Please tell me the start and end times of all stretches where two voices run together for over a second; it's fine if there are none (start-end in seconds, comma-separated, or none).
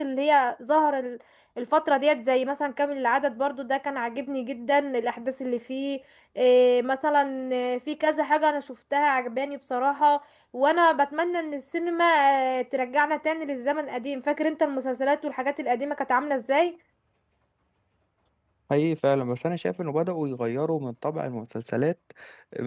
none